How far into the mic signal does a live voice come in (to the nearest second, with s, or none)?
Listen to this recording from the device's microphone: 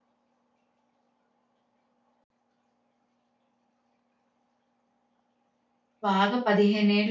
6 s